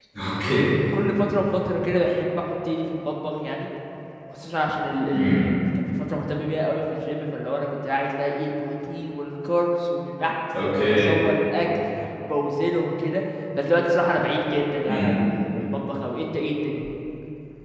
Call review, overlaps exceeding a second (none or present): none